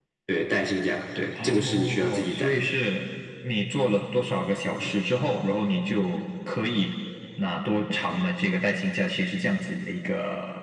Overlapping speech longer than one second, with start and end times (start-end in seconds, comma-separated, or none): 1.4-2.6